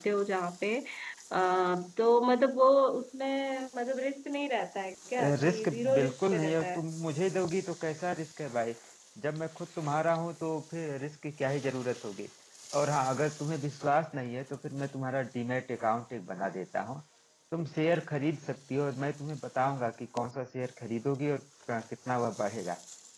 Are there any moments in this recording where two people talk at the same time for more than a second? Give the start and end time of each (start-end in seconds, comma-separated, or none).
5.5-6.8